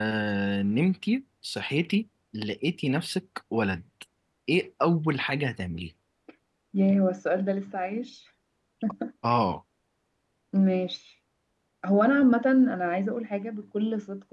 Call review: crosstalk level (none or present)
none